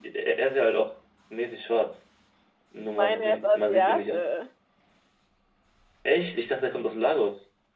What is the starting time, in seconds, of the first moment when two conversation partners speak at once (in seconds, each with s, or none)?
3.0 s